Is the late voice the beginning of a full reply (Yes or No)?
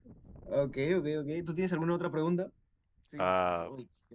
Yes